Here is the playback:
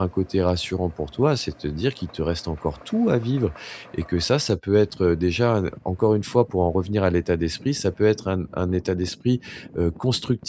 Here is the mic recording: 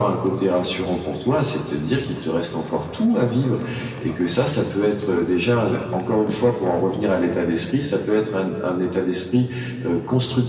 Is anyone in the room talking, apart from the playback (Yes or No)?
No